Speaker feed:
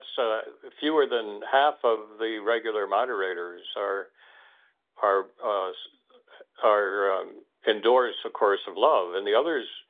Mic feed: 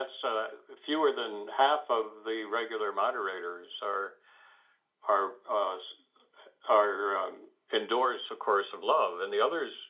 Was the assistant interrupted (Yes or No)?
No